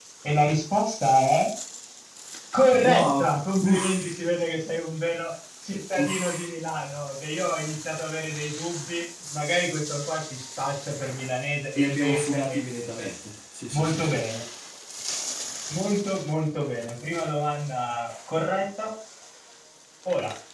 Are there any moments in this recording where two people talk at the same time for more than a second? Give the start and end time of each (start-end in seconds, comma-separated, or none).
2.8-4.2, 11.8-13.1